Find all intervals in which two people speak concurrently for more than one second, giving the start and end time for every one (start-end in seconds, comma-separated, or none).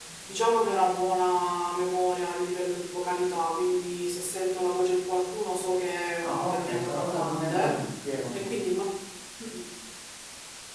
6.2-7.8